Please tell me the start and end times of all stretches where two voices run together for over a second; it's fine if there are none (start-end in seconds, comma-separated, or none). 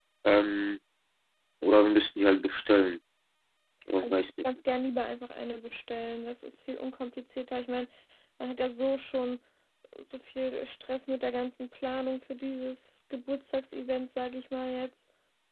none